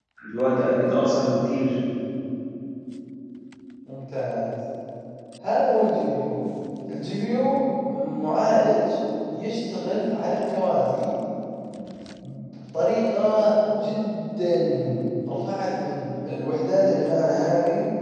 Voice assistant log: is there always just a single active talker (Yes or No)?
Yes